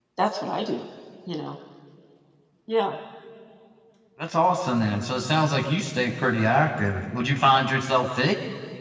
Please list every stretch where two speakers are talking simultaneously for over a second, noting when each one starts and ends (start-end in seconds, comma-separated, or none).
none